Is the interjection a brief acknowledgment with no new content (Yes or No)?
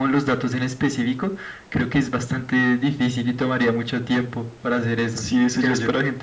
No